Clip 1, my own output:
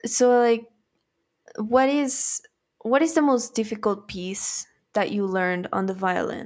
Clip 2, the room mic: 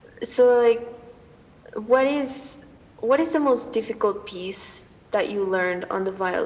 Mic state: echo only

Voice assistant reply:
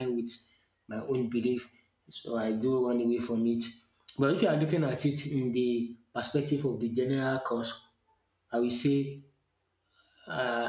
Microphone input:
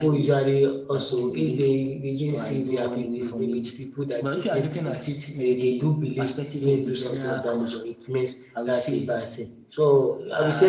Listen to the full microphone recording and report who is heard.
both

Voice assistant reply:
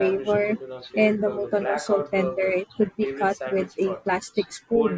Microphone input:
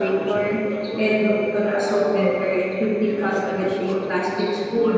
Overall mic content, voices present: both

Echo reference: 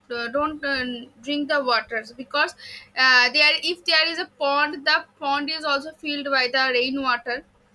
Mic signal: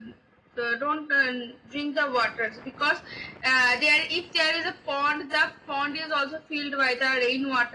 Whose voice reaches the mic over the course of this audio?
echo only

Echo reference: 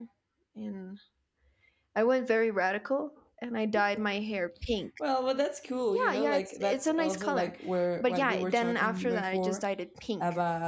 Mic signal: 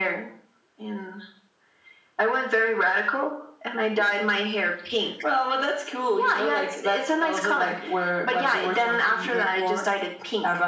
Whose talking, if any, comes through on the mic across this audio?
echo only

